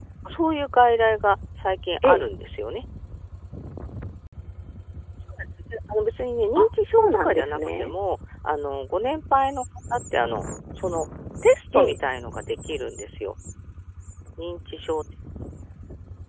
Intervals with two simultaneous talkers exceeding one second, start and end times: 6.5-7.9

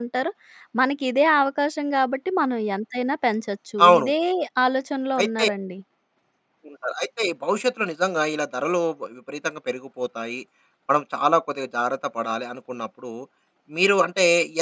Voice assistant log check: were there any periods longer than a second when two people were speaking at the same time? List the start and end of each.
none

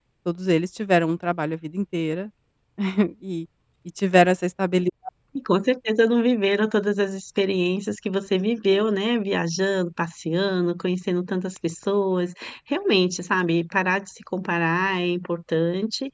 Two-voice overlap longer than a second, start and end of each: none

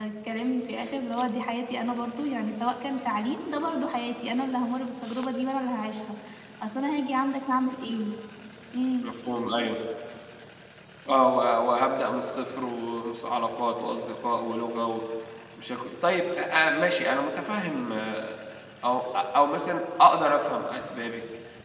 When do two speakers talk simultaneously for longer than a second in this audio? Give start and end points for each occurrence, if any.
none

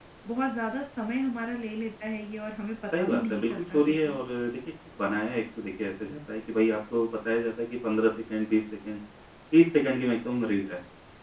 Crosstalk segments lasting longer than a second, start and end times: 3.0-4.2

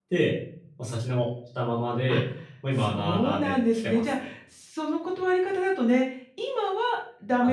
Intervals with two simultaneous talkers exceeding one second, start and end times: 2.8-4.3

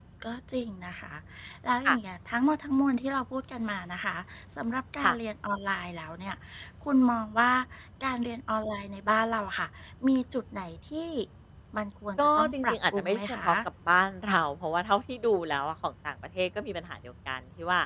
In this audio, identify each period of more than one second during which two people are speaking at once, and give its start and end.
12.2-13.5

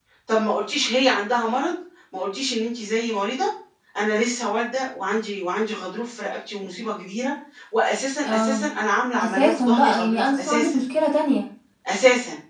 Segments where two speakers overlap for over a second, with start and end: 9.2-10.8

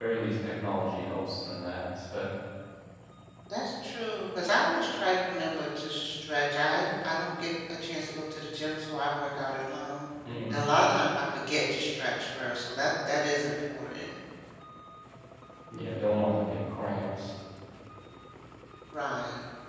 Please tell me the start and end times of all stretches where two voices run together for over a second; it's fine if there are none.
none

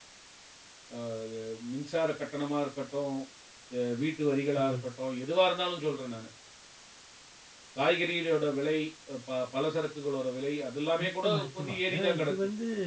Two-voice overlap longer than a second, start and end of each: 11.0-12.3

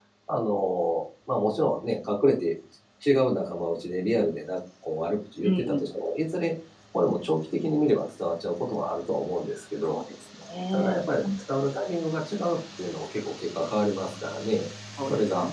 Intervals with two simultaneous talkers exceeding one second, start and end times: none

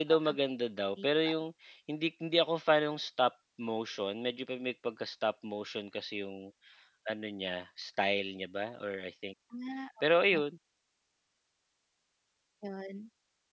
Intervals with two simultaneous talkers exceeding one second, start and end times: none

